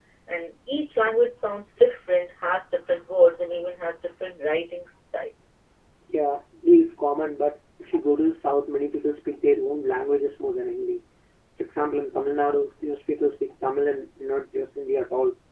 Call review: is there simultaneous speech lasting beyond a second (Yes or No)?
No